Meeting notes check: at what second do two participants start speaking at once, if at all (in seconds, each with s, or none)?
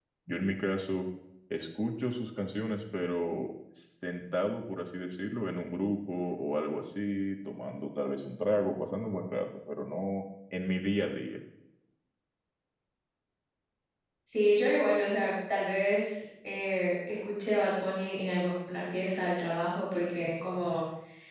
none